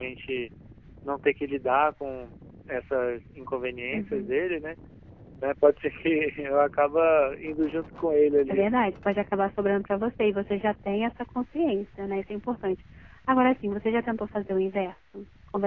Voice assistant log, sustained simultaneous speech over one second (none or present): none